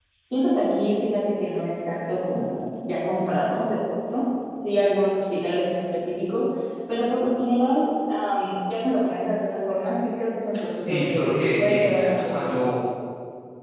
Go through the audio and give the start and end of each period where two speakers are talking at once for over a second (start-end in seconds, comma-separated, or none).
10.8-12.4